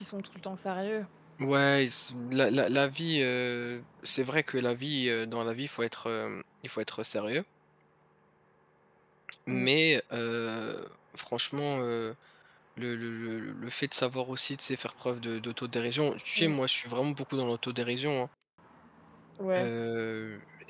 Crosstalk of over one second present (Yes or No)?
No